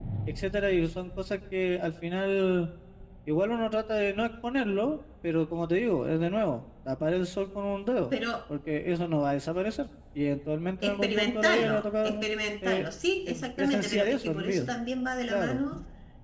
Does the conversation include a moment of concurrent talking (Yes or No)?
Yes